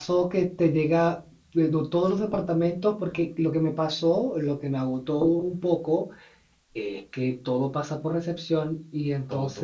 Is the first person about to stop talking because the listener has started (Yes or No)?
No